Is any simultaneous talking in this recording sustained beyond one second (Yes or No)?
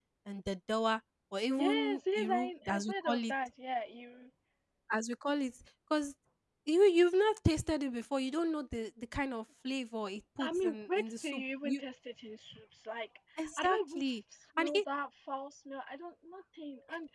Yes